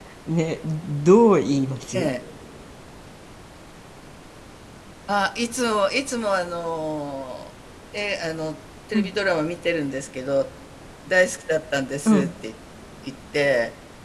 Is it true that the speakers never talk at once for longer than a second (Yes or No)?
Yes